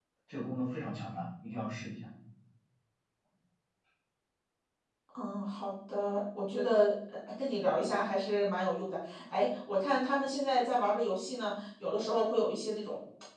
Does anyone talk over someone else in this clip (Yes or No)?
No